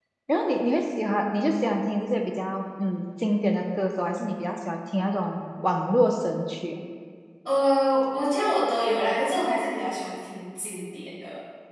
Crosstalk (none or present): none